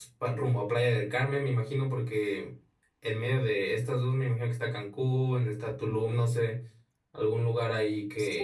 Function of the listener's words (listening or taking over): taking over